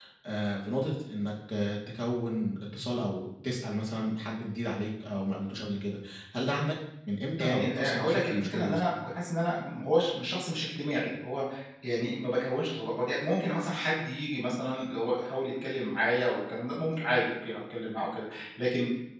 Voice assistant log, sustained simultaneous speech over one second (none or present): present